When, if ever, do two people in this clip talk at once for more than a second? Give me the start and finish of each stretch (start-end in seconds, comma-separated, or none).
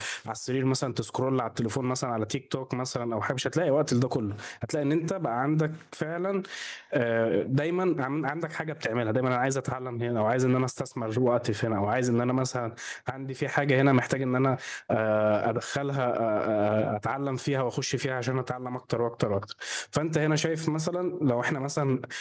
none